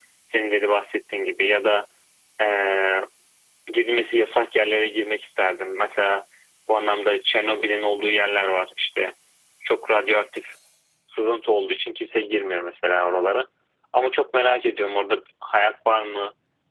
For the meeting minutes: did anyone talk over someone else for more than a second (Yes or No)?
No